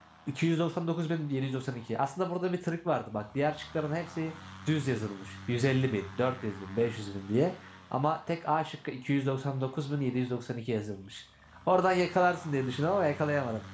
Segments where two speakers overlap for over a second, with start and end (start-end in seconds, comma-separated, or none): none